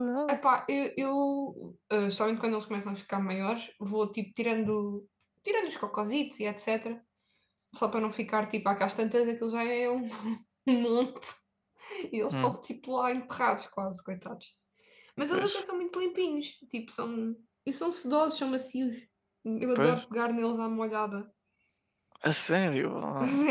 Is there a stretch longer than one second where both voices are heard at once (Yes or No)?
No